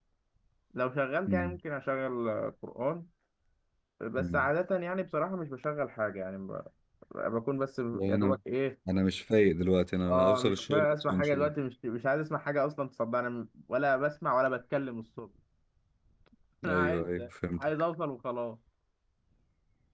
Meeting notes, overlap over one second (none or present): present